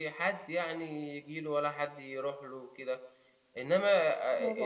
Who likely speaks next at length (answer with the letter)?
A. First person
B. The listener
A